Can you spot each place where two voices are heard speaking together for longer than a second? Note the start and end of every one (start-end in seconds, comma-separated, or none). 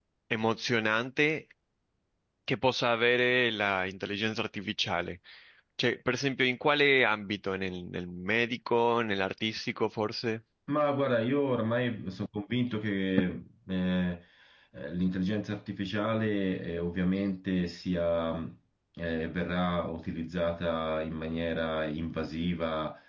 none